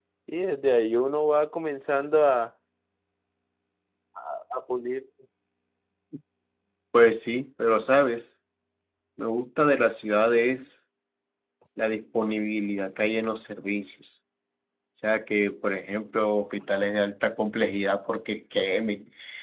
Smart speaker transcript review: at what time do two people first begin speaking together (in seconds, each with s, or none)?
none